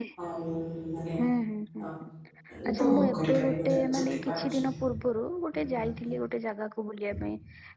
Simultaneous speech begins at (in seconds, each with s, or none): 2.7 s